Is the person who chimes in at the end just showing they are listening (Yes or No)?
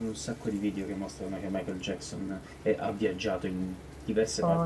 Yes